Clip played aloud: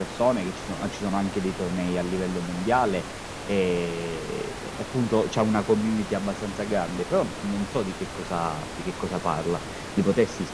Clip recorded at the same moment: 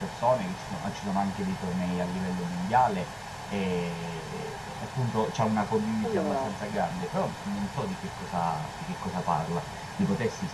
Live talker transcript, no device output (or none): Allora,